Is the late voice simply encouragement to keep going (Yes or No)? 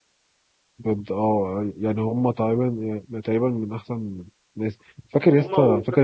No